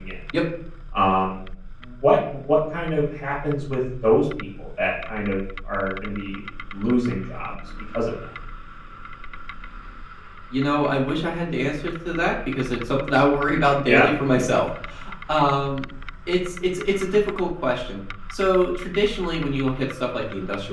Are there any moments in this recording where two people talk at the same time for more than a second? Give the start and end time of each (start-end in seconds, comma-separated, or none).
none